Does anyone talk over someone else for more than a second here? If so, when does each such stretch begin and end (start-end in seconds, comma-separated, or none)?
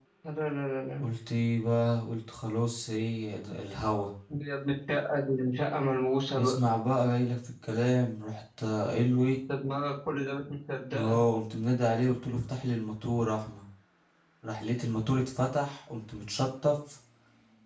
none